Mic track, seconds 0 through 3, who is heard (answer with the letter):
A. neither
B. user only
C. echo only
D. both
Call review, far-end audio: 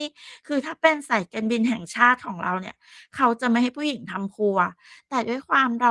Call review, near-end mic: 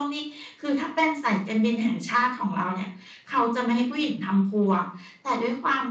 C